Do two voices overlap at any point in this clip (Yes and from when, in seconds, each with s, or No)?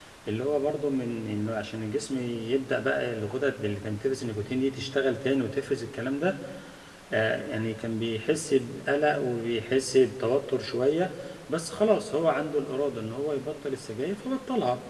No